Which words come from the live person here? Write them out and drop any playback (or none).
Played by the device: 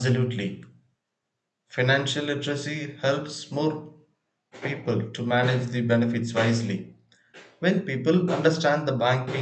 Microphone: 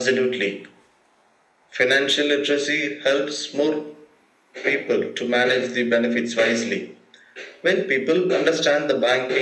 none